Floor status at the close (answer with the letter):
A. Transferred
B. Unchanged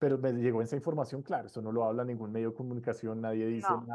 B